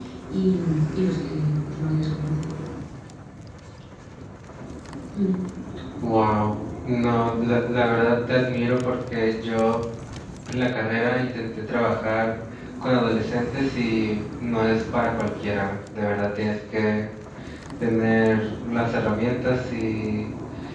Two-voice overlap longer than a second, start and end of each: none

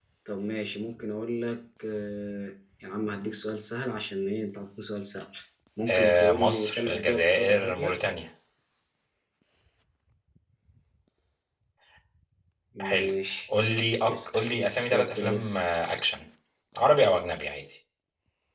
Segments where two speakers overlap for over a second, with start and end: 5.9-7.9, 14.1-15.6

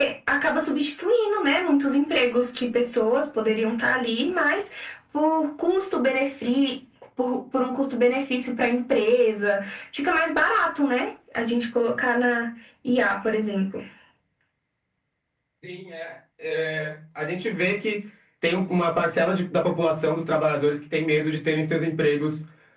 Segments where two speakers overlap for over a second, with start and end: none

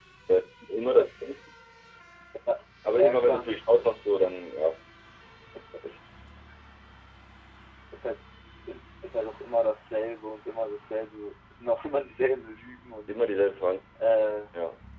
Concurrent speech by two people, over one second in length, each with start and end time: none

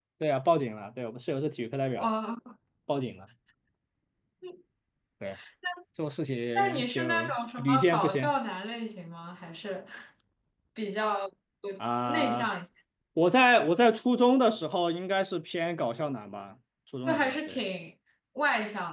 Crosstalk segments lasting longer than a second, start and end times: 6.5-8.3

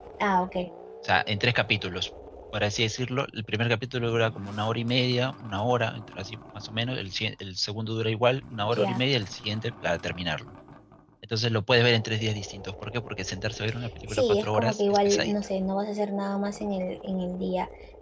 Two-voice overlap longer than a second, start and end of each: 14.1-15.3

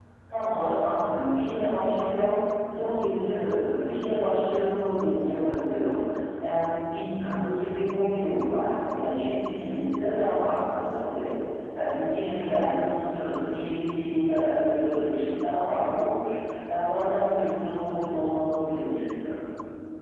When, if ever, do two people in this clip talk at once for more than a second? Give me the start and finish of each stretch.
none

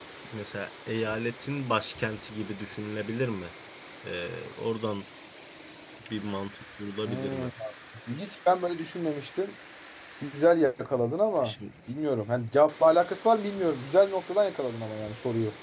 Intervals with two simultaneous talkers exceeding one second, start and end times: none

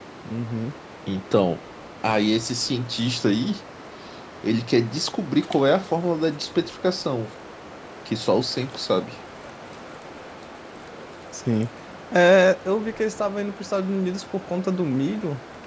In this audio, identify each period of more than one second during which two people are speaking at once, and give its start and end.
none

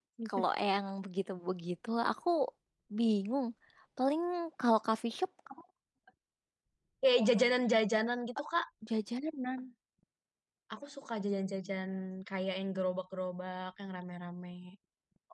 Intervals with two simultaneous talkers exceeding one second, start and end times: none

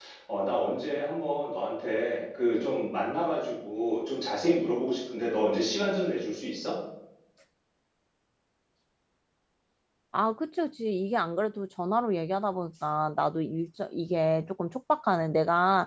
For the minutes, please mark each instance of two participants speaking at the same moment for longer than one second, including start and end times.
none

